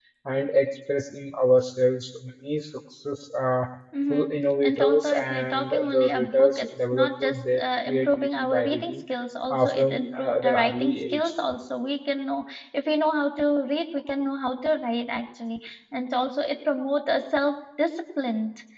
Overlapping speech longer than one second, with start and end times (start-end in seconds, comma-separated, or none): 4.6-8.9, 9.5-11.2